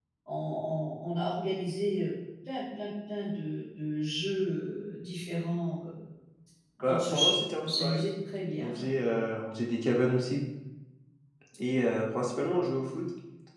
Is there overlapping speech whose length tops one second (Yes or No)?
Yes